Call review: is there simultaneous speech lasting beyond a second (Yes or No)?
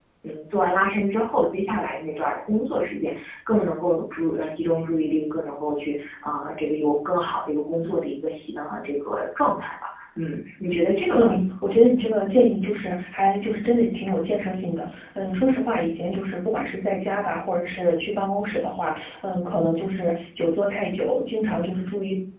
No